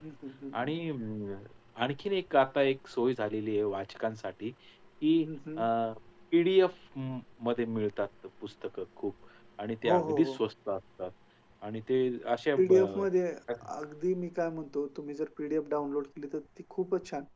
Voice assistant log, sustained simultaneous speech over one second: none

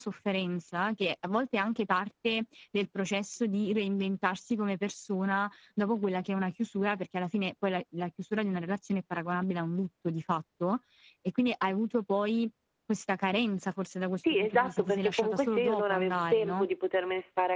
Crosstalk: present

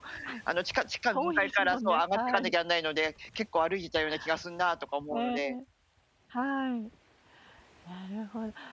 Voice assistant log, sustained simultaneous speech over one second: present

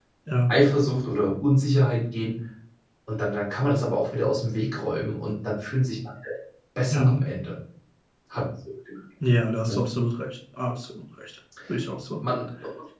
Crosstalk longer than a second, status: none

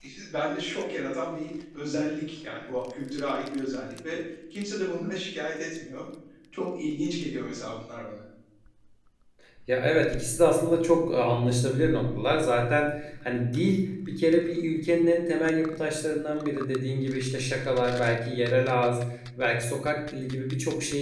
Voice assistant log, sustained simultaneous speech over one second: none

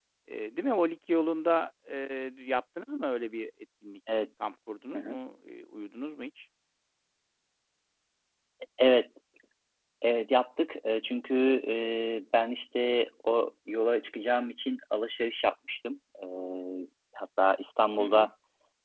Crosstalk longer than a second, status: none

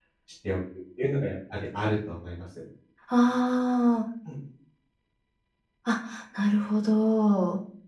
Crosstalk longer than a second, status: none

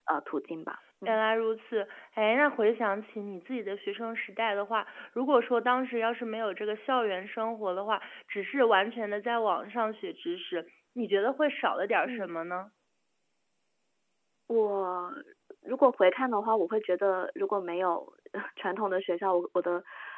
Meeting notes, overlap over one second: none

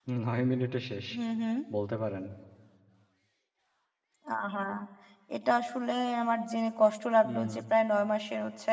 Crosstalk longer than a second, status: none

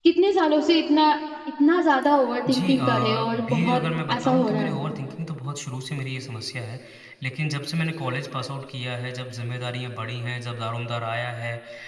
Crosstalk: present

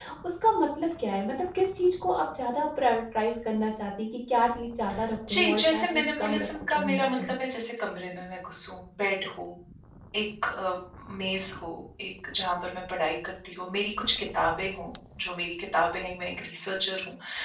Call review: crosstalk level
present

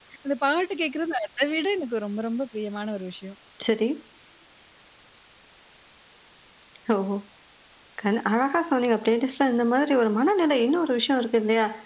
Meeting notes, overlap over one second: none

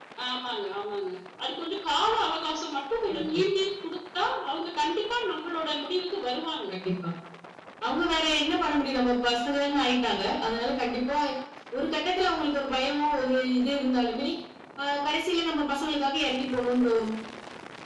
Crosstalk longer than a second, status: none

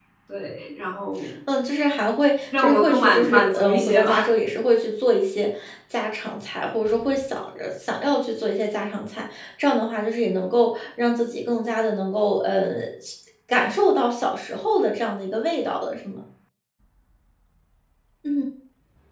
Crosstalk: present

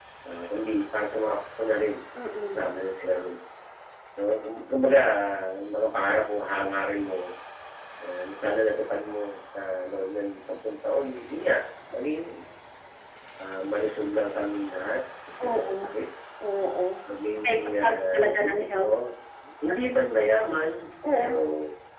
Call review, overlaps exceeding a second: present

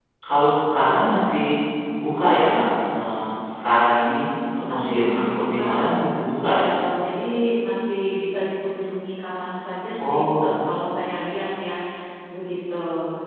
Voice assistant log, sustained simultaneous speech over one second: present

